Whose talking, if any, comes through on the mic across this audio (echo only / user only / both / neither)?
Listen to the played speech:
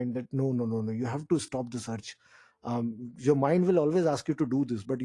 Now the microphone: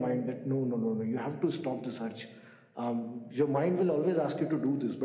echo only